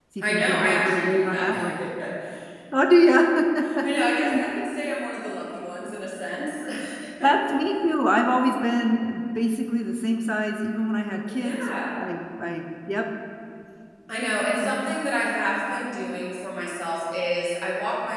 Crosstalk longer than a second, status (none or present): present